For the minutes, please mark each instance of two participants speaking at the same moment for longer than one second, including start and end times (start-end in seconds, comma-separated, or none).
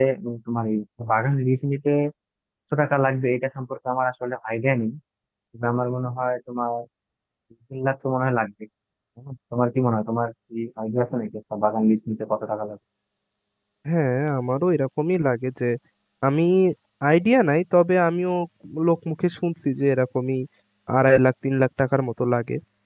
none